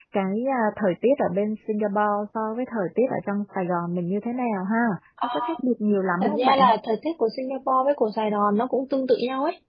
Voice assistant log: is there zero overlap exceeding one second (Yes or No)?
Yes